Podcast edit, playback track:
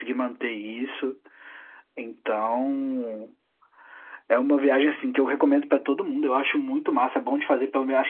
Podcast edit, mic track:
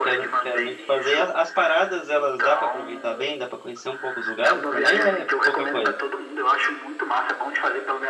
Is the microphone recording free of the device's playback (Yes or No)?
No